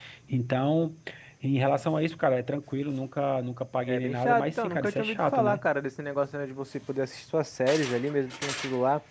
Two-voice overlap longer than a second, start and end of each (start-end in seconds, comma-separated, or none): 3.9-5.6